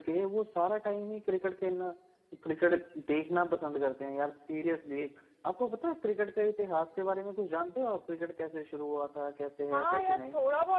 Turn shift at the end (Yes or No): Yes